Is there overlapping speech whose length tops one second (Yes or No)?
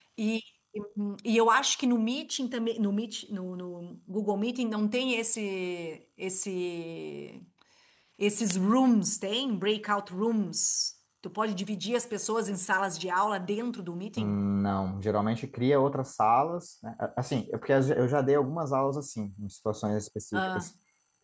No